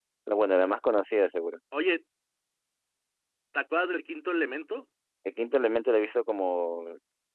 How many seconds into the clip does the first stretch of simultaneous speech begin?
none

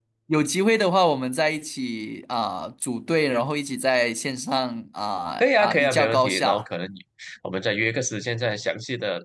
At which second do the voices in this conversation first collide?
5.4 s

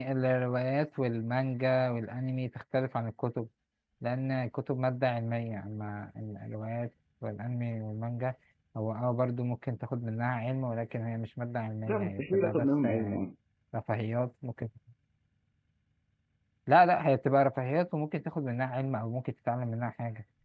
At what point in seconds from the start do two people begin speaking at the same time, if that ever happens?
11.9 s

